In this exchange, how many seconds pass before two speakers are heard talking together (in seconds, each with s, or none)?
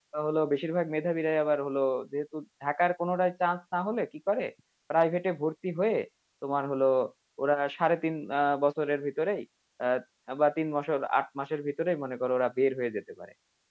none